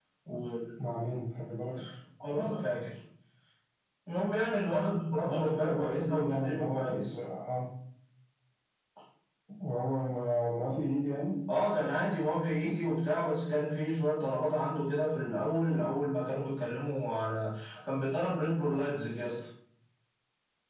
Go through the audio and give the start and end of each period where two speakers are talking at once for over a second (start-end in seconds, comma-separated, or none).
5.3-7.1